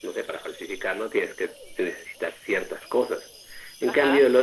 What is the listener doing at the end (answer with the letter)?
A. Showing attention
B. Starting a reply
A